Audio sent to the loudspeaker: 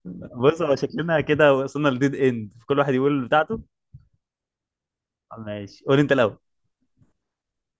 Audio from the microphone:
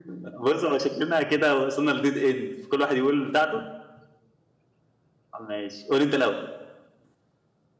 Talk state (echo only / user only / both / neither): echo only